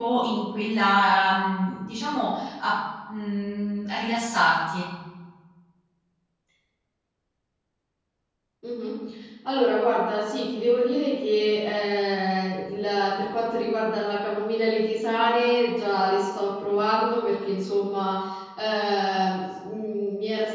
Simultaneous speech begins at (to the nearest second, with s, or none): none